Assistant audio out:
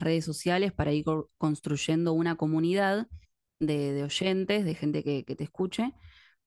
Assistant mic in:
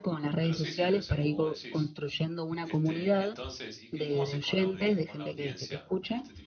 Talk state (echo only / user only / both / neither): both